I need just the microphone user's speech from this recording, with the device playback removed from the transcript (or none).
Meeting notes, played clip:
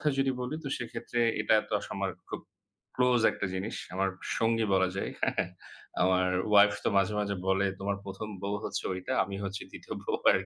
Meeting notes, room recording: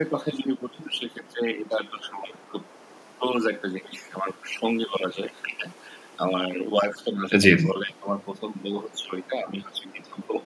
আ জি, জি।